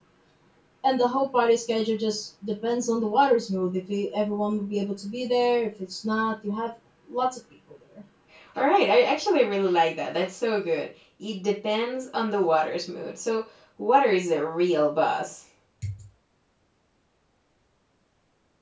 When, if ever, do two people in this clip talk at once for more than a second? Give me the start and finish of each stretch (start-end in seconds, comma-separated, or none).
none